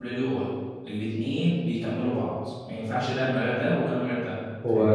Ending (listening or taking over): taking over